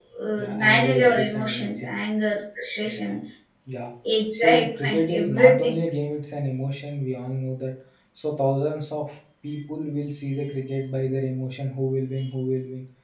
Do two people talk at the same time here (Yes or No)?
Yes